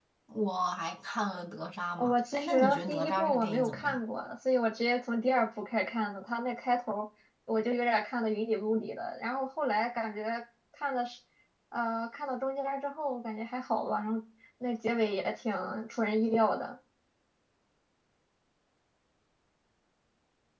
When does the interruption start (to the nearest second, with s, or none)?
2 s